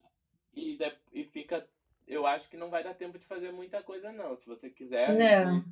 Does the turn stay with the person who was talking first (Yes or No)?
Yes